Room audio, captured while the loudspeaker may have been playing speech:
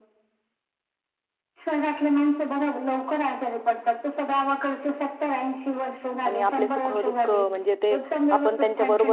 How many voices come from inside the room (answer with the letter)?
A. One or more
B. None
A